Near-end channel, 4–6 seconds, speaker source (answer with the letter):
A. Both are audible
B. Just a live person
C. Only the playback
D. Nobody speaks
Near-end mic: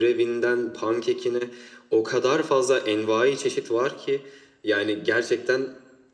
C